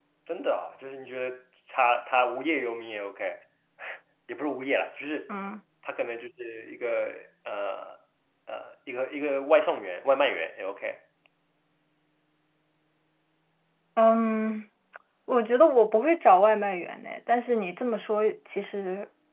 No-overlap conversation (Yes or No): Yes